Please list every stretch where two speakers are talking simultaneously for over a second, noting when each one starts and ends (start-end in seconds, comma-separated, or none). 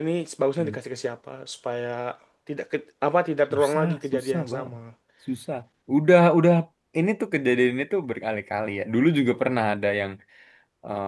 3.5-4.7